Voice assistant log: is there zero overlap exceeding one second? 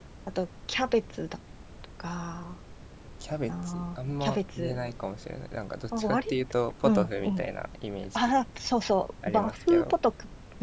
No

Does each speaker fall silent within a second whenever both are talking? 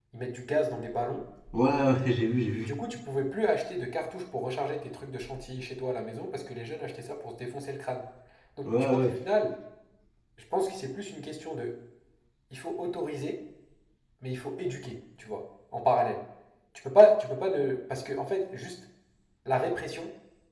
Yes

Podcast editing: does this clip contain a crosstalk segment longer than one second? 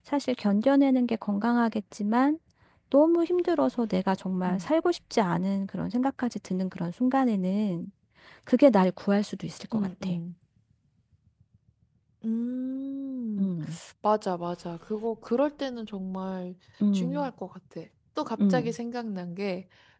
No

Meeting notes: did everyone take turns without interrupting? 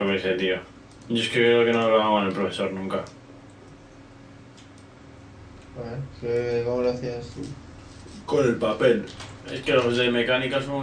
Yes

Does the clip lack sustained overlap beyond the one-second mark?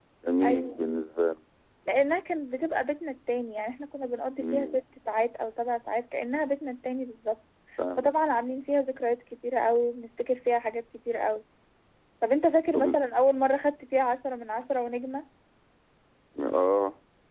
Yes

